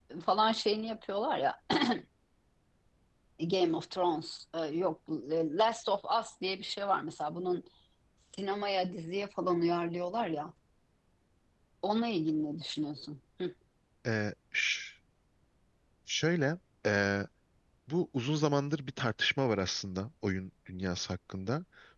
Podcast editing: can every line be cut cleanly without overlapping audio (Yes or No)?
Yes